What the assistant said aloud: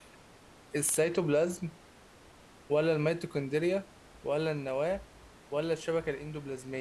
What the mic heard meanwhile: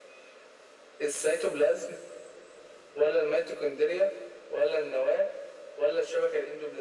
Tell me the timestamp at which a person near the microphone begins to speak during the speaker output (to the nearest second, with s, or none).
none